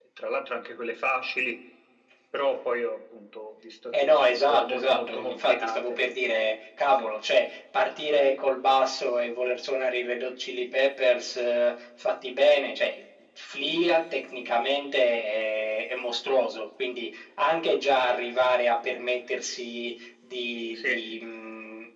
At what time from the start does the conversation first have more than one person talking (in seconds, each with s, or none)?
4.0 s